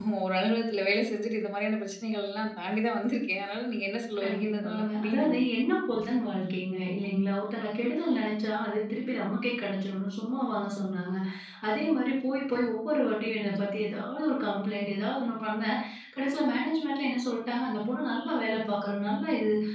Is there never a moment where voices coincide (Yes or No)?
No